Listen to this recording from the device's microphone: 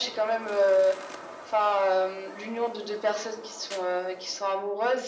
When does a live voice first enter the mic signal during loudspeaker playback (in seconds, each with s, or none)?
none